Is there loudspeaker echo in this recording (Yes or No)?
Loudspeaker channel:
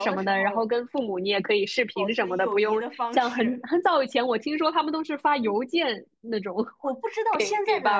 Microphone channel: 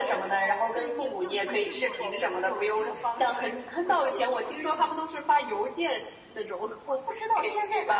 Yes